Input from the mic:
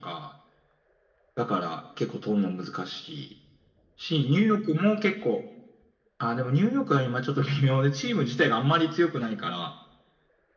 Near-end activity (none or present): none